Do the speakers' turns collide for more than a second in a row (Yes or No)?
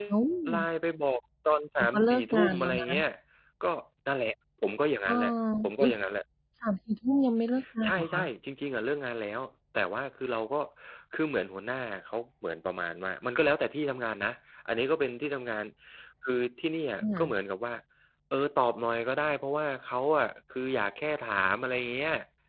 Yes